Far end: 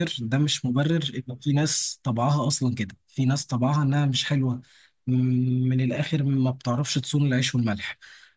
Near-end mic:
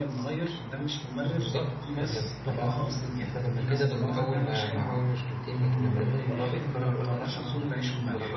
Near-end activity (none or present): present